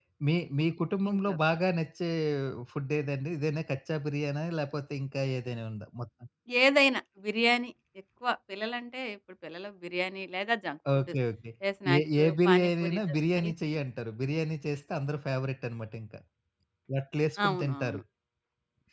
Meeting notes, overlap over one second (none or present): present